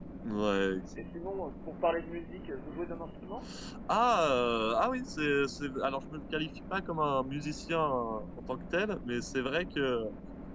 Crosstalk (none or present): none